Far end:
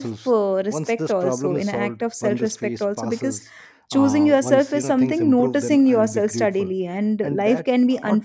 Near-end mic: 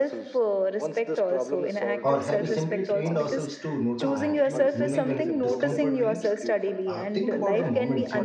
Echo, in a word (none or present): present